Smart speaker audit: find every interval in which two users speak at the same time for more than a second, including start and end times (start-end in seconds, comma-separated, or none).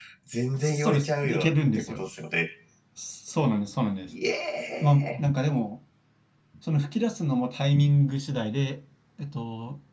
0.6-2.0